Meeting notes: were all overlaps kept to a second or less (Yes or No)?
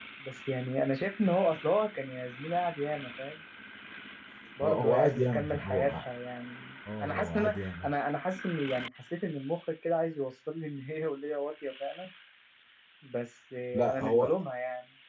No